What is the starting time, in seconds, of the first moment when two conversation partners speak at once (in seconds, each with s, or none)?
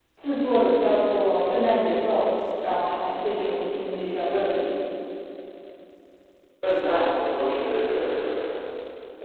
none